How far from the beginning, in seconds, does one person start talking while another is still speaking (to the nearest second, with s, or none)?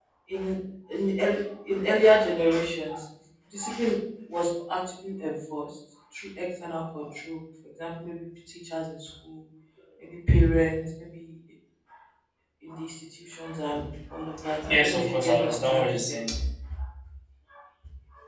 15 s